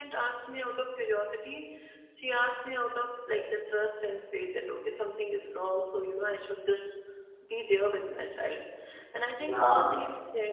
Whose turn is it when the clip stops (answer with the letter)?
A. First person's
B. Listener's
A